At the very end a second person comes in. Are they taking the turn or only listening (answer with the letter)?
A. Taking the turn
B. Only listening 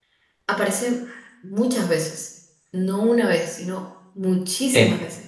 A